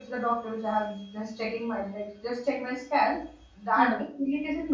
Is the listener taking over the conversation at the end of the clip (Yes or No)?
No